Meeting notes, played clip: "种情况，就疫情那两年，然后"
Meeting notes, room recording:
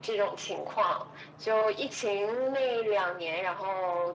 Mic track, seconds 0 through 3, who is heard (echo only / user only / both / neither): echo only